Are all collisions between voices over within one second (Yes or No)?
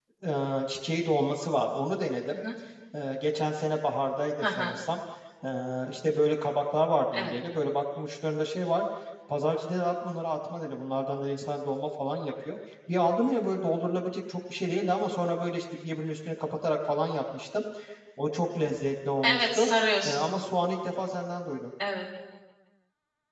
Yes